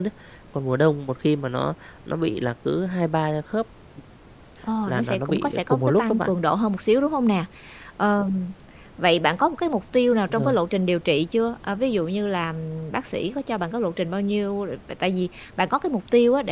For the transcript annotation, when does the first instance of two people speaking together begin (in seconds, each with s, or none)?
4.9 s